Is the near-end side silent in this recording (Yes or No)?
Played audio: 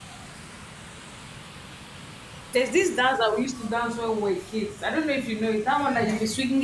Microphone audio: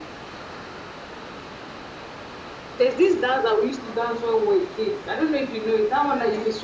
Yes